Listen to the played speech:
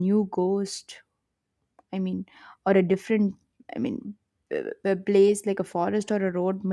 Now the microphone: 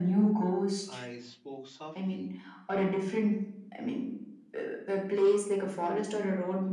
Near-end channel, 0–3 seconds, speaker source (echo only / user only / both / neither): both